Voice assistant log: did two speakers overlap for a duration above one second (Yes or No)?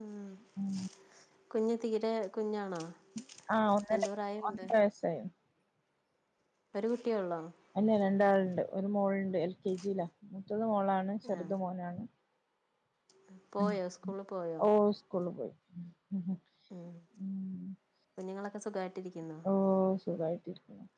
No